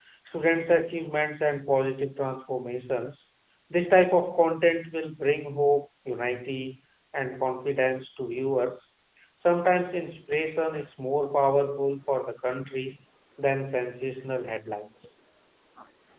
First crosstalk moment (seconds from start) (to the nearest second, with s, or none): none